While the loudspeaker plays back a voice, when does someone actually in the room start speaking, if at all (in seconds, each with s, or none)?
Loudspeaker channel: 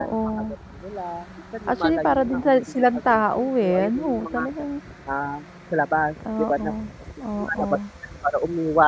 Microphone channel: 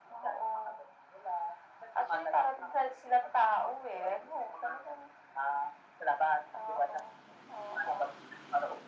none